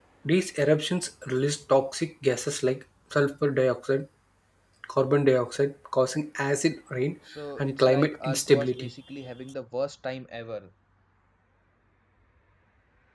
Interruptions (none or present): present